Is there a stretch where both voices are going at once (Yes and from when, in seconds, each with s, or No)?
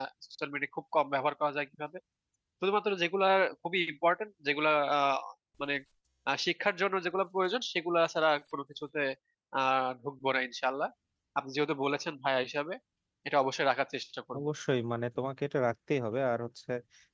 No